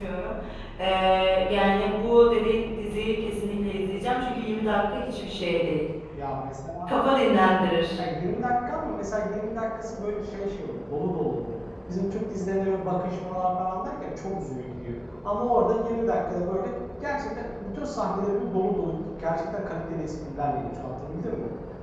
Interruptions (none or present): none